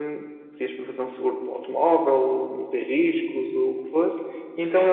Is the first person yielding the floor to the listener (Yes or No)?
No